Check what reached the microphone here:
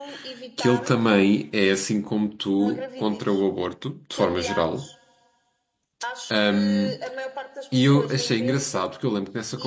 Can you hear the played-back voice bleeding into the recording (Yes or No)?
Yes